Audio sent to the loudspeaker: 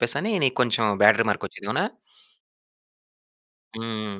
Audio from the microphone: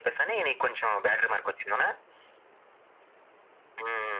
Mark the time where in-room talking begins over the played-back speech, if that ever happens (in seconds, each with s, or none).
none